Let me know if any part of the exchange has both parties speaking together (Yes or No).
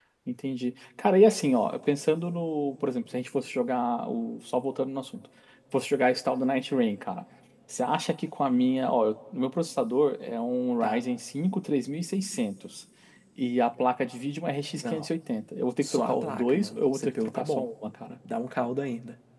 Yes